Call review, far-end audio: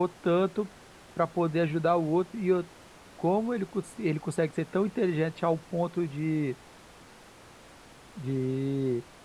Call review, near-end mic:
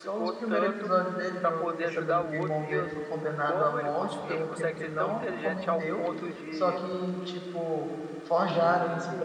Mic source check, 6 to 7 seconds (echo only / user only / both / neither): both